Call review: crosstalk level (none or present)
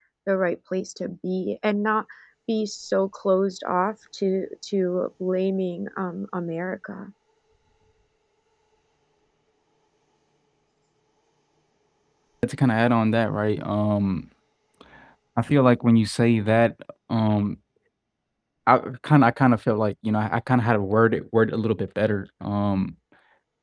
none